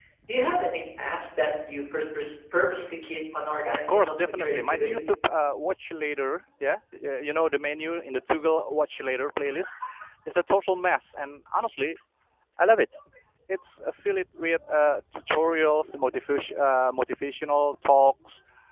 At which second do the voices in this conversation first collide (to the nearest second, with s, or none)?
4 s